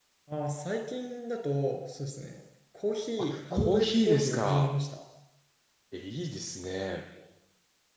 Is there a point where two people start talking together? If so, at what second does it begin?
3 s

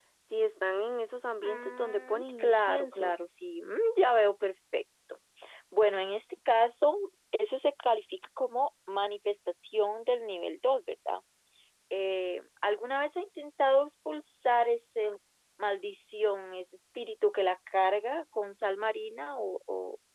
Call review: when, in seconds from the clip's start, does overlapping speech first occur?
1 s

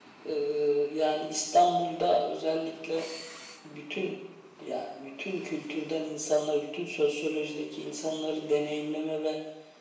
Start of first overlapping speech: none

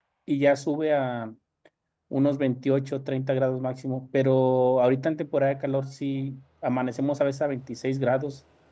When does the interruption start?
none

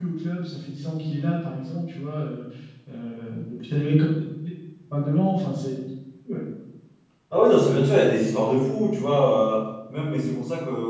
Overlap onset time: none

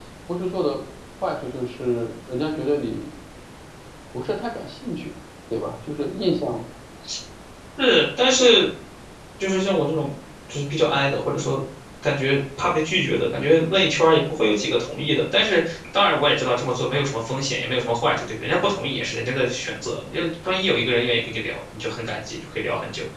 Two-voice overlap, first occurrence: none

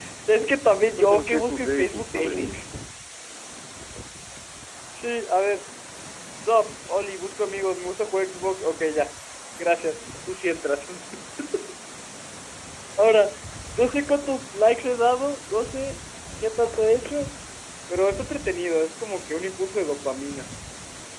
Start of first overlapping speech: 1 s

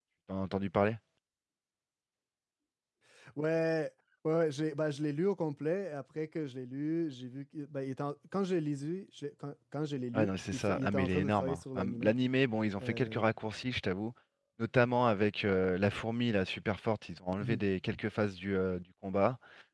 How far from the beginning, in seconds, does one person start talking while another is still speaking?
10 s

